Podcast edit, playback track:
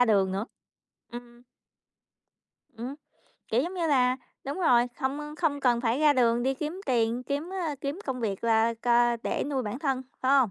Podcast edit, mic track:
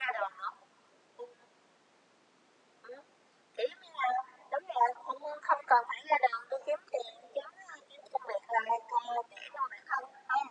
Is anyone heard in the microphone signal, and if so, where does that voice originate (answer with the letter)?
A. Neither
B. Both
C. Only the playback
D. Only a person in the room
C